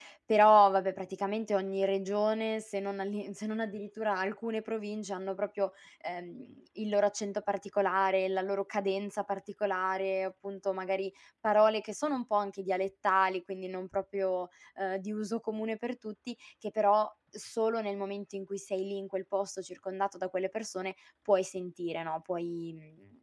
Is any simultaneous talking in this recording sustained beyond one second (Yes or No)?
No